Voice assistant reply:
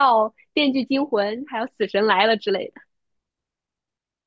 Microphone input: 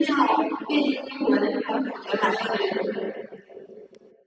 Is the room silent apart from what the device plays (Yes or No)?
Yes